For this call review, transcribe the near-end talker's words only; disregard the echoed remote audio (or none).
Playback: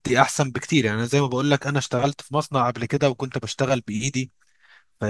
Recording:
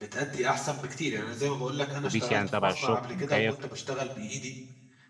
الأتوبيس يعني تبع الشغل مكيف